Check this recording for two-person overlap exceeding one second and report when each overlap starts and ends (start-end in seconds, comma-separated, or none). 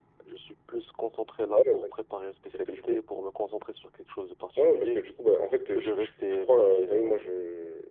5.7-7.2